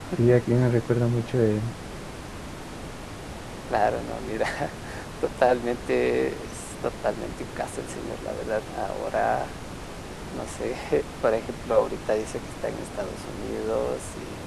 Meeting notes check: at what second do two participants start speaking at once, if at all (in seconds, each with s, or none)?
none